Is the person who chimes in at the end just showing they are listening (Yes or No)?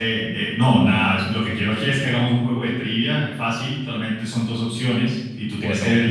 Yes